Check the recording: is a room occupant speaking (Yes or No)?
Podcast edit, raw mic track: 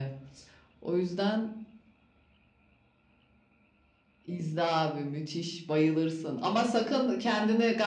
No